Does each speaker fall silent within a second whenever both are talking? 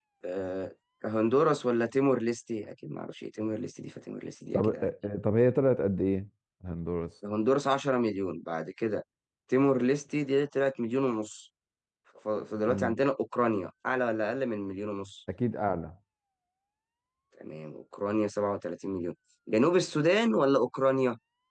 Yes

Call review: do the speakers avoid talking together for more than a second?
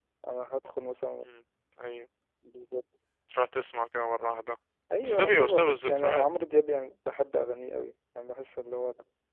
No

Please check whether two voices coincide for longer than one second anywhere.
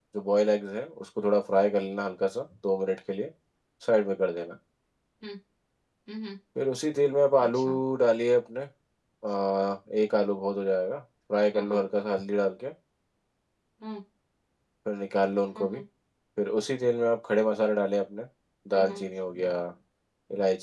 No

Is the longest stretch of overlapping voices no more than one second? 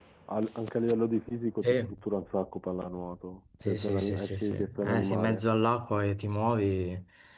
No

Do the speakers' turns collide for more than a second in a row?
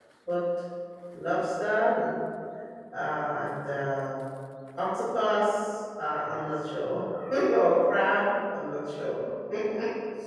No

